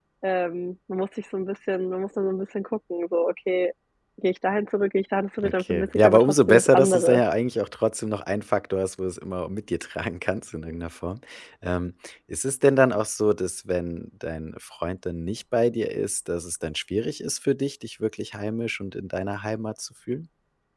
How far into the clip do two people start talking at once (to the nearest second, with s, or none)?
5 s